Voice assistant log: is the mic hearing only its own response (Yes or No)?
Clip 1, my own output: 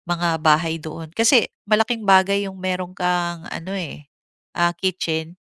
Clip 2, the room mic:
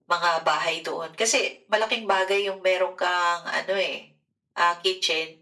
Yes